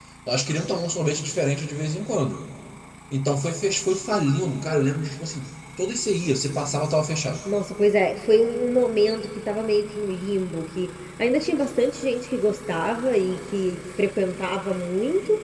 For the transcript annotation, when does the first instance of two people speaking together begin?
none

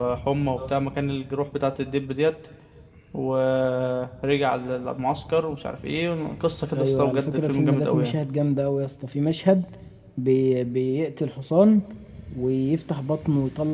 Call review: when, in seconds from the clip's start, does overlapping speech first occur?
6.7 s

